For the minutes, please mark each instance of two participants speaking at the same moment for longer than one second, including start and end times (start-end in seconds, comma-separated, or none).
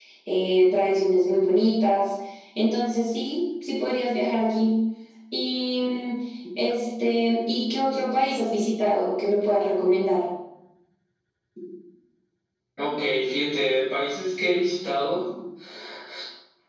none